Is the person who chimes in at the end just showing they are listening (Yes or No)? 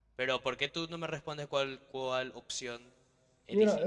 No